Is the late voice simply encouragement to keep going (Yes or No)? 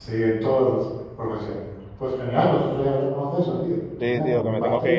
No